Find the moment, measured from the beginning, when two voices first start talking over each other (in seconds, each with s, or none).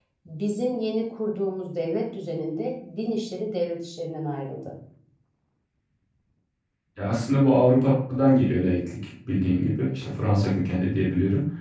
none